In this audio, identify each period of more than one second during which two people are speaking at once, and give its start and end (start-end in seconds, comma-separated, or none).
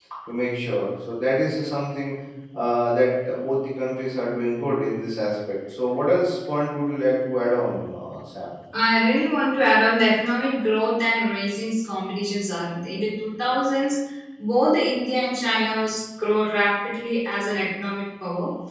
none